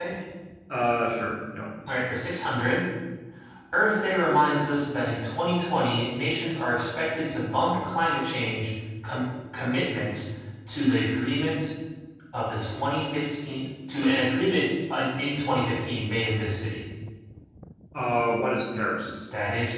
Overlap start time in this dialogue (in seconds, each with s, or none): none